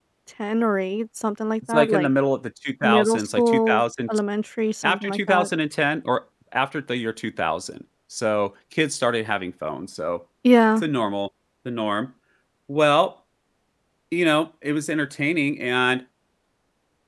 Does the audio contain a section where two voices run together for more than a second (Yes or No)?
Yes